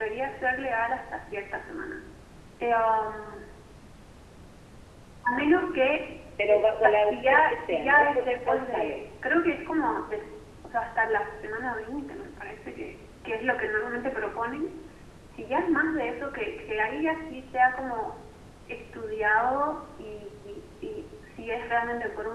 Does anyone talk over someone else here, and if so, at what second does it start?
6.5 s

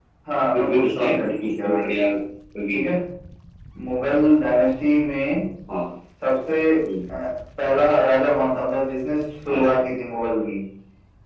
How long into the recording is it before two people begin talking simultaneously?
0.5 s

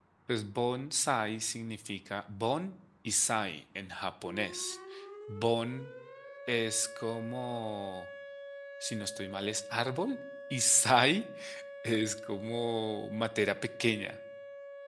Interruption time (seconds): none

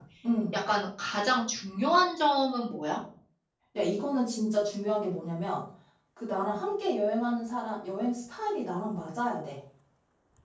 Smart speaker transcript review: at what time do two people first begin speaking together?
none

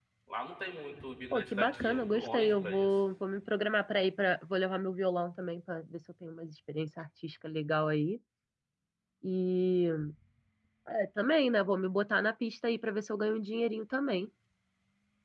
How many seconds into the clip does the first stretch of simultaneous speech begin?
1.3 s

